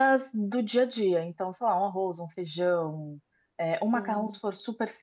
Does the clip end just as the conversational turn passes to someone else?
No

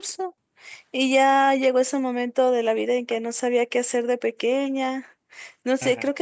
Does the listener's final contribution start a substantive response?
No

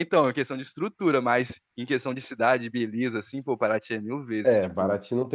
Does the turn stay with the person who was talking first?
No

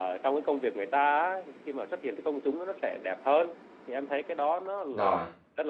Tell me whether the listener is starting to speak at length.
No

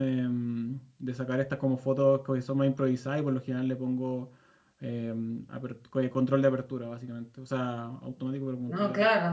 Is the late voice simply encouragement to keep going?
No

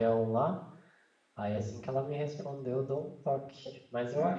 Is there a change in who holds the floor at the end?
No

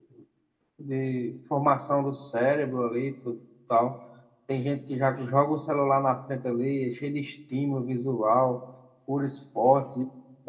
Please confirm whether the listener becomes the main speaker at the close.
No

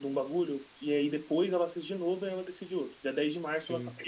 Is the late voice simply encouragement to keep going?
Yes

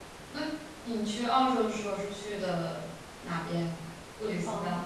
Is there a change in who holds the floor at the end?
Yes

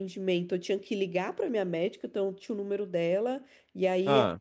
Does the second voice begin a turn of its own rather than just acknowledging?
No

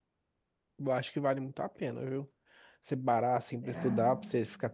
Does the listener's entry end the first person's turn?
No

